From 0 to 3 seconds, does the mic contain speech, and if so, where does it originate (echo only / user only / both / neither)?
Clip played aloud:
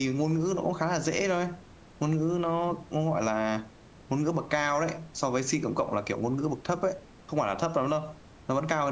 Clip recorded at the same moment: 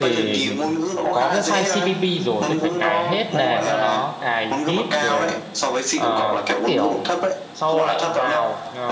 both